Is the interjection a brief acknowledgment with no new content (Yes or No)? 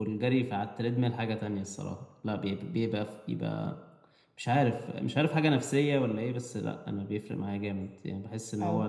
No